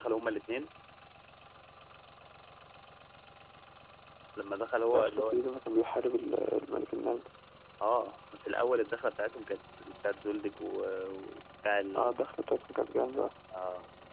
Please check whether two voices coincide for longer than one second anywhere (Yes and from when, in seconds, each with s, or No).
No